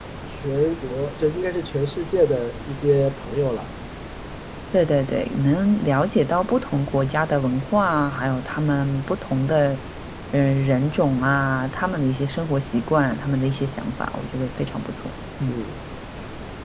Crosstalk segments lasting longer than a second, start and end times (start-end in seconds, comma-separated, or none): none